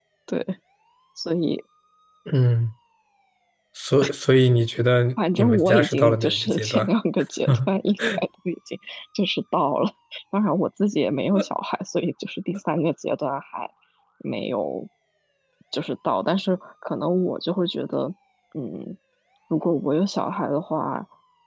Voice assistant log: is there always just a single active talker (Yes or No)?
No